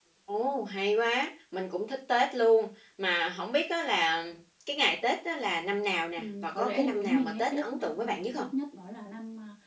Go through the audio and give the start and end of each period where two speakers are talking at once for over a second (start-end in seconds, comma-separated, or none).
6.2-8.5